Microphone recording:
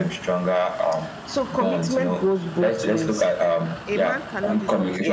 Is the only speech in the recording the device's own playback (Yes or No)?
No